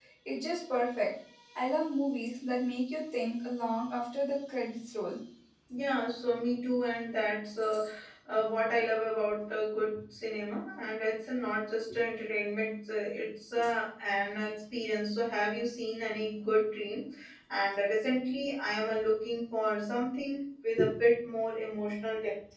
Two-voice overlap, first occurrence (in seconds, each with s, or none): none